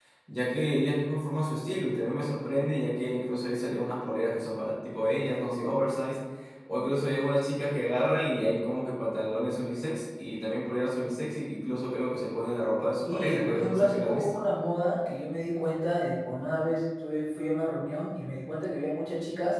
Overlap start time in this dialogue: 13.1 s

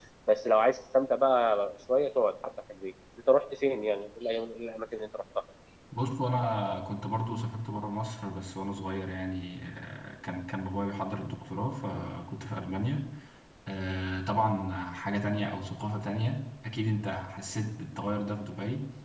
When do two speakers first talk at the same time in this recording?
none

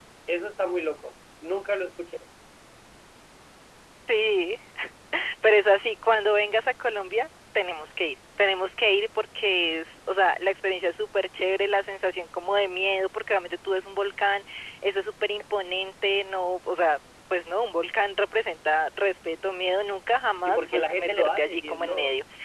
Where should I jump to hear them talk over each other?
20.4 s

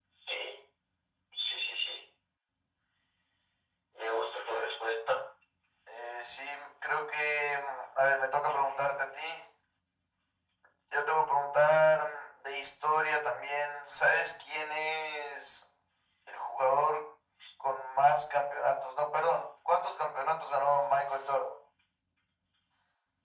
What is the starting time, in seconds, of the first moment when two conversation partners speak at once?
none

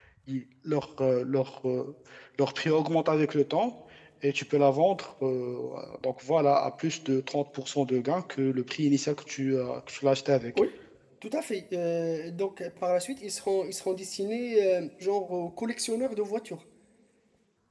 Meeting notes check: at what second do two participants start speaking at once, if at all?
none

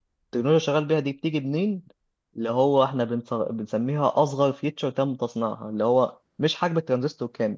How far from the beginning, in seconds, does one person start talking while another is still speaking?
none

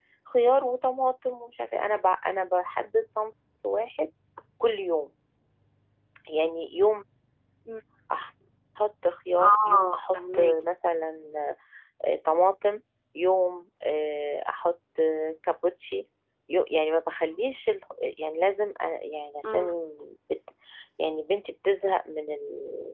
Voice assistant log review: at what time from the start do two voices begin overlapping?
9.4 s

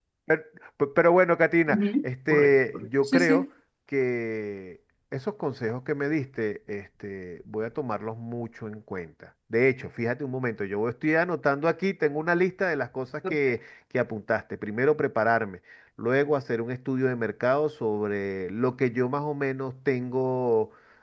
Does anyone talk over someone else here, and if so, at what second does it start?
1.7 s

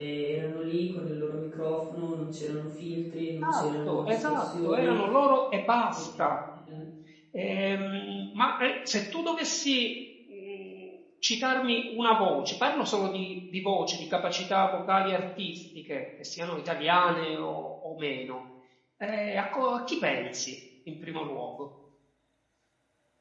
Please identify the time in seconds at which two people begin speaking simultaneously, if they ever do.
3.4 s

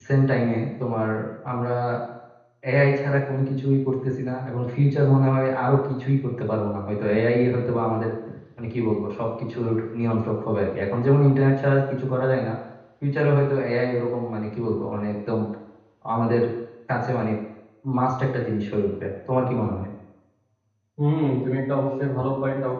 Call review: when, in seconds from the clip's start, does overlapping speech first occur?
none

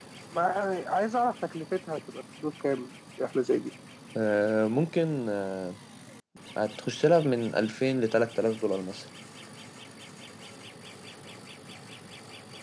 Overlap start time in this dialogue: none

